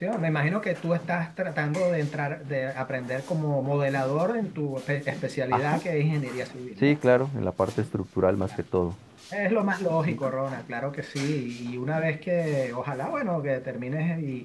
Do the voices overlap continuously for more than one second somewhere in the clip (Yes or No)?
No